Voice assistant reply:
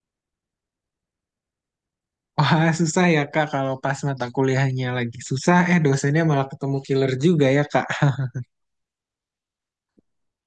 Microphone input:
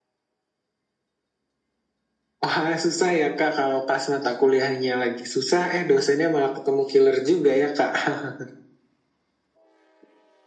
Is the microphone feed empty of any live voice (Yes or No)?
Yes